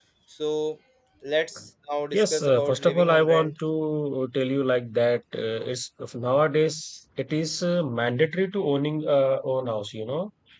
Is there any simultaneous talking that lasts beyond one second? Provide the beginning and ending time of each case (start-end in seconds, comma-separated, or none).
2.1-3.5